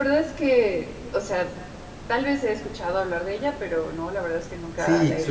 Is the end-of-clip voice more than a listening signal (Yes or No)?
Yes